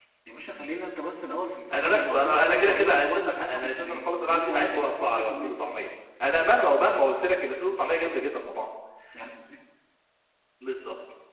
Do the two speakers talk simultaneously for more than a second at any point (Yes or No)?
Yes